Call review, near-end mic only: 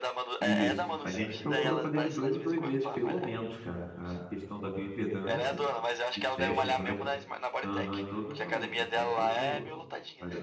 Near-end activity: present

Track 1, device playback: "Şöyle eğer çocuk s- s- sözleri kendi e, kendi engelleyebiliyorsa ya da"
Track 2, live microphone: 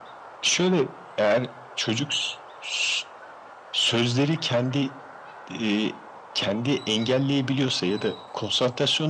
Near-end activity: none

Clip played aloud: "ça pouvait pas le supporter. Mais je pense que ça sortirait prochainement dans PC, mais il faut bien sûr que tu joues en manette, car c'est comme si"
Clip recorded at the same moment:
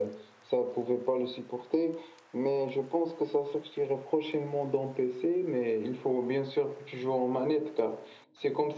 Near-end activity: none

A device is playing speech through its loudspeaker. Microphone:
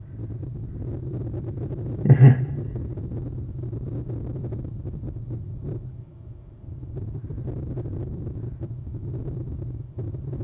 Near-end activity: present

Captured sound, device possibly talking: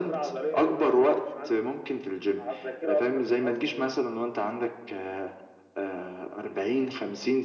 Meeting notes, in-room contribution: none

